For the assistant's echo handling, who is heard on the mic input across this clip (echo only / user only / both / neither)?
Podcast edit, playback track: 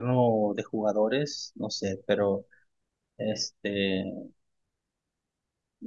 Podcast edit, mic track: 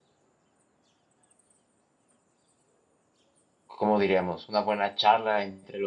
user only